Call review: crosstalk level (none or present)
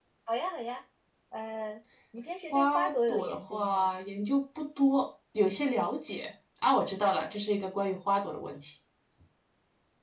present